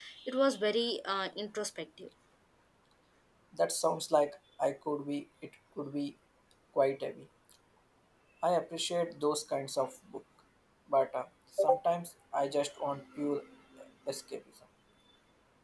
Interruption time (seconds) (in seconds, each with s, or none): none